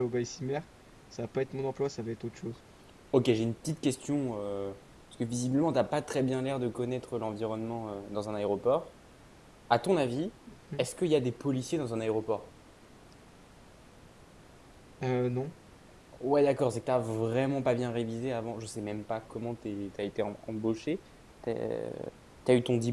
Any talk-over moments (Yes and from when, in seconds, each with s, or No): No